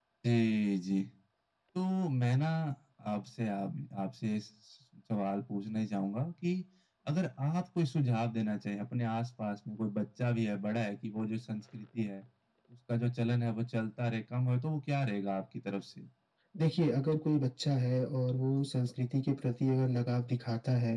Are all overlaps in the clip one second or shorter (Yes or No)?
Yes